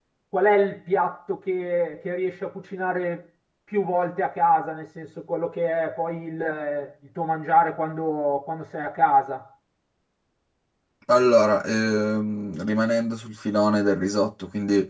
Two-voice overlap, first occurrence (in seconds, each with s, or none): none